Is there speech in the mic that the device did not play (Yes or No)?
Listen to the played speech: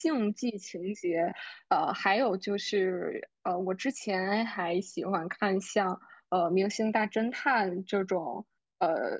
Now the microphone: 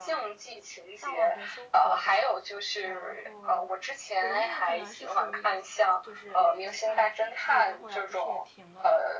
Yes